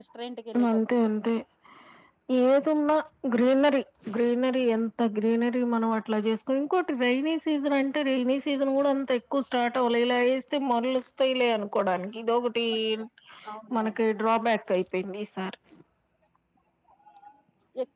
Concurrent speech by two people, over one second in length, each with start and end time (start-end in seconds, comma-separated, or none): none